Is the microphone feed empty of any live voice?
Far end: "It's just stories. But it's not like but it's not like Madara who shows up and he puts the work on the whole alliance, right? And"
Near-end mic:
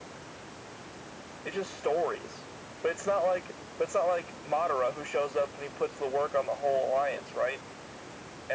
Yes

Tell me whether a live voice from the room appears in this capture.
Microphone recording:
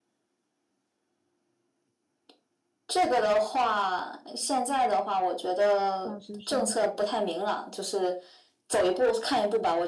Yes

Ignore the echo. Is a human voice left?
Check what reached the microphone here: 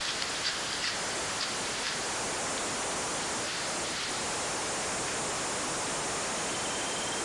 No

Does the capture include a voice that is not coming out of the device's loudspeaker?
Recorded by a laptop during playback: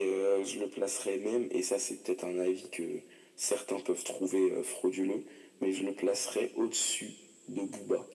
No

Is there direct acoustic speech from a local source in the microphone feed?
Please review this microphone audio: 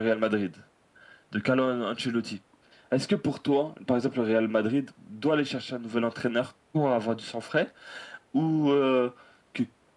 No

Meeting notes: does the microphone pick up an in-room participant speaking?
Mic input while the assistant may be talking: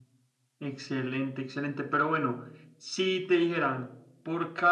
No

